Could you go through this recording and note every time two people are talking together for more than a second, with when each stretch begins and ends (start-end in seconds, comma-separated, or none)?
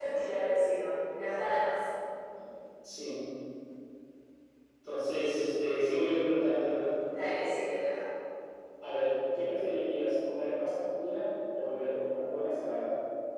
none